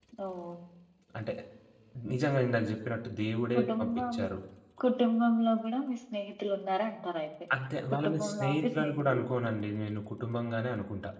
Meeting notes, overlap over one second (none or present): present